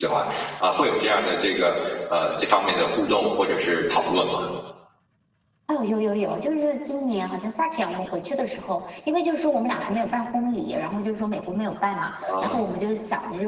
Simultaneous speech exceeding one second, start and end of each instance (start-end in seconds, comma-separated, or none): none